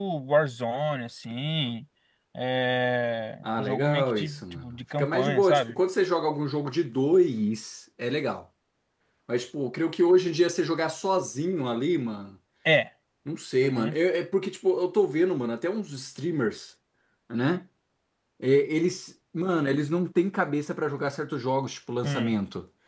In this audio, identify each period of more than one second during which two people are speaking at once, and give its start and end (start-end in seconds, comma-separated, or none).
3.4-5.8